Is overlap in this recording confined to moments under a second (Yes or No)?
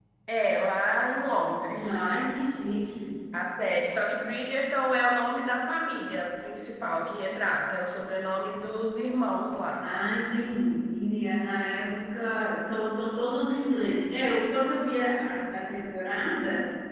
Yes